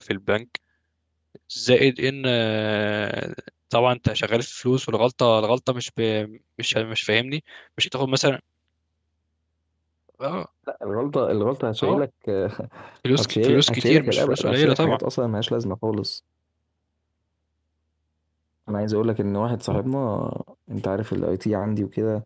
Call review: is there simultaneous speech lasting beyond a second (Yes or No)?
Yes